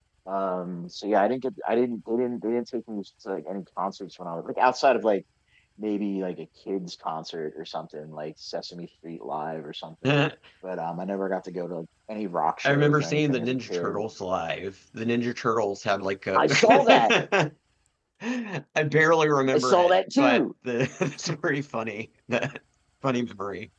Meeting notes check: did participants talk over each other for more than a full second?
Yes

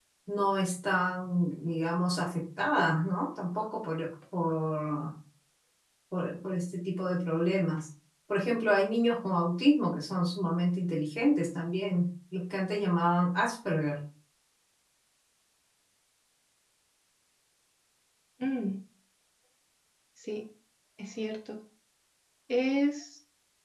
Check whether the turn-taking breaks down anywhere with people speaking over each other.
No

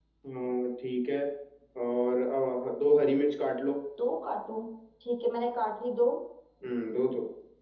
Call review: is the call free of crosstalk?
Yes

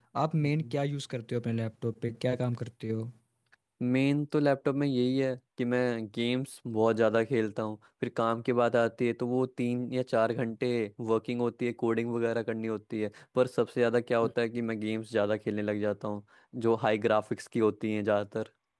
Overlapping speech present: No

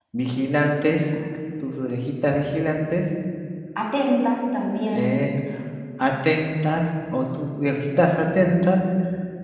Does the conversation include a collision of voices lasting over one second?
No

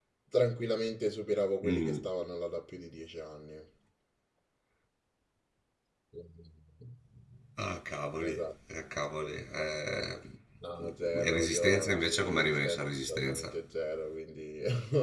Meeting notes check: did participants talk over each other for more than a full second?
Yes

